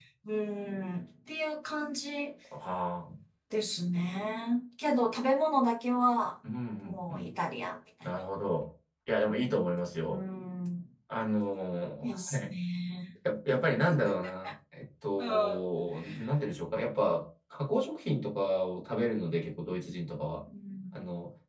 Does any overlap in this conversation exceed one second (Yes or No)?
No